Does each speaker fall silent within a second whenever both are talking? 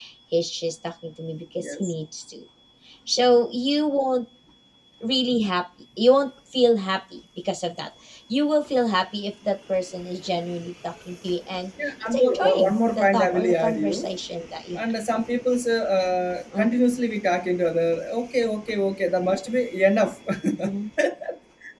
No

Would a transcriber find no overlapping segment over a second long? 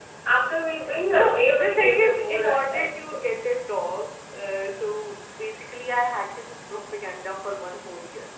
No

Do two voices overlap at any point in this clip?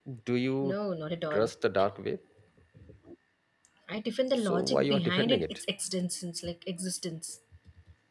Yes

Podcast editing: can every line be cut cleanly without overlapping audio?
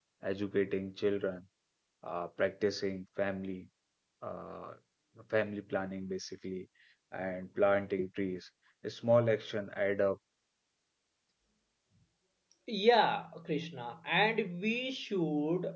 Yes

